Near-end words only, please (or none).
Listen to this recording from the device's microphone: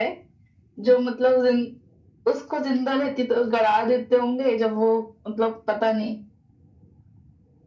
none